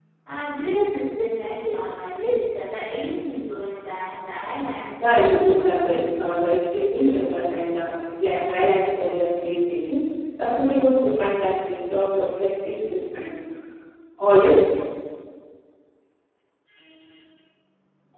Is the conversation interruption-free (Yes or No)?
No